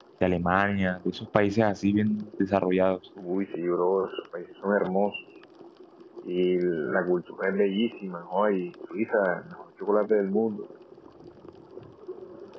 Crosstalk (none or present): none